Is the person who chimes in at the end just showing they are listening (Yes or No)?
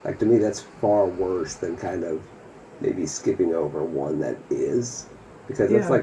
Yes